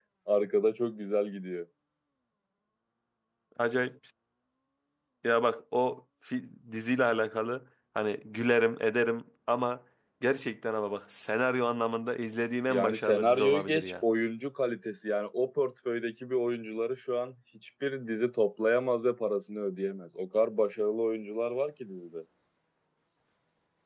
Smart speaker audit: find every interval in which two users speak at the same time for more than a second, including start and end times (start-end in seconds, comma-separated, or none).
12.7-13.9